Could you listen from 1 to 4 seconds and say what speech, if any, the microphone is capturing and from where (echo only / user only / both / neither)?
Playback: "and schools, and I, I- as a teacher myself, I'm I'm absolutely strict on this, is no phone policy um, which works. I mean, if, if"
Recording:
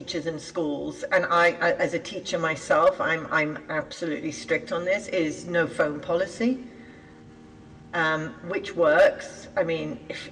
echo only